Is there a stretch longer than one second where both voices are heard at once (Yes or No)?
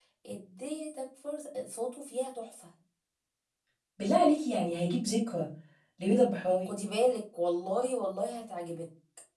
No